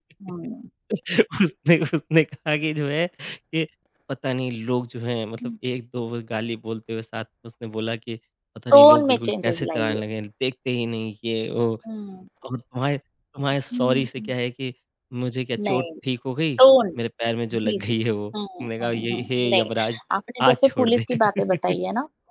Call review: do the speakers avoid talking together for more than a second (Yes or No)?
No